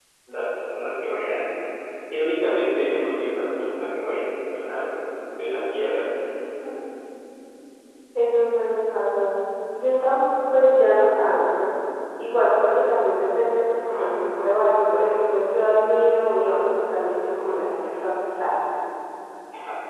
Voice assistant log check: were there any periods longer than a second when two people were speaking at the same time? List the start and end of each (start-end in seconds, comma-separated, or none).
none